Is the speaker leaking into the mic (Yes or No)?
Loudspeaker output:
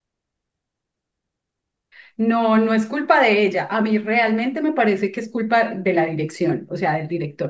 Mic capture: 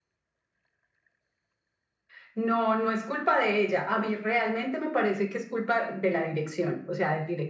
Yes